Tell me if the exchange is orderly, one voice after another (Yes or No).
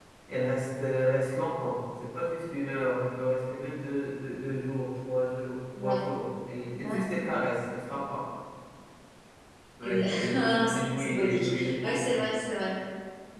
No